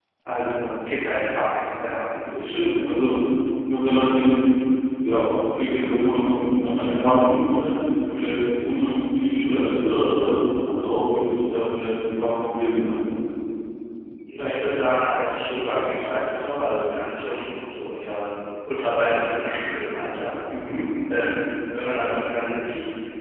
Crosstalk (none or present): none